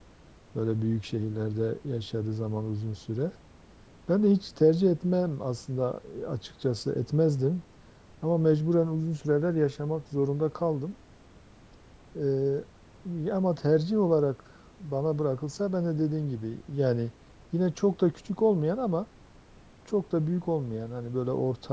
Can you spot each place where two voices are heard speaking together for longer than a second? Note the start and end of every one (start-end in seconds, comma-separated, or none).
none